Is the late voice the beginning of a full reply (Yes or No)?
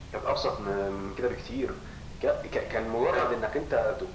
No